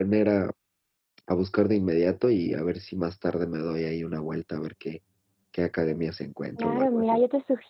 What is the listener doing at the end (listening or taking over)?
taking over